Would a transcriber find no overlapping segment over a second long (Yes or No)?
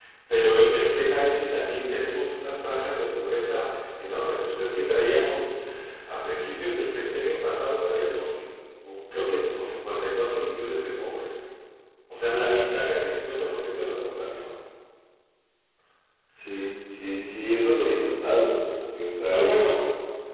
Yes